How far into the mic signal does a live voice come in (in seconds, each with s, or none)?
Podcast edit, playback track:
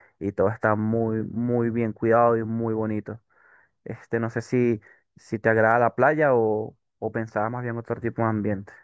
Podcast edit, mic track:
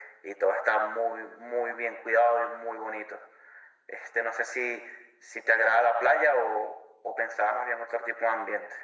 none